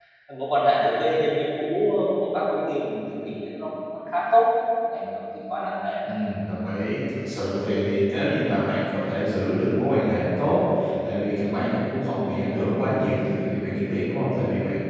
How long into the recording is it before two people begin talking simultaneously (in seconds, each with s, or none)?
none